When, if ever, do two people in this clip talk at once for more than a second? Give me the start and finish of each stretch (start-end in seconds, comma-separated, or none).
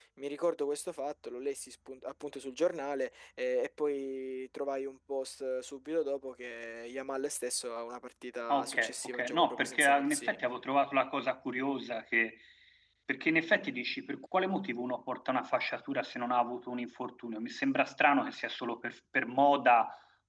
8.5-10.4